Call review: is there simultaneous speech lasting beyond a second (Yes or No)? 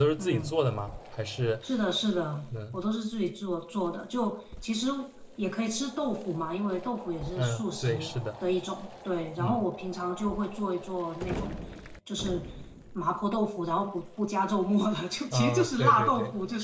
Yes